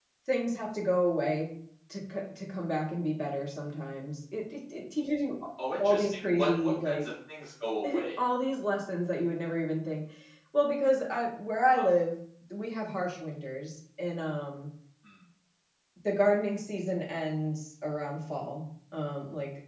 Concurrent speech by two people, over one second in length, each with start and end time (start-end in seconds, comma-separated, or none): 5.8-7.1